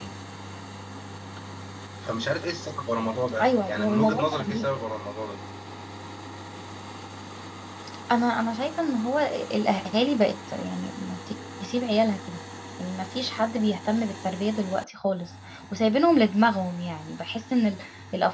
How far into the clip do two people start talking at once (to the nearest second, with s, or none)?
3 s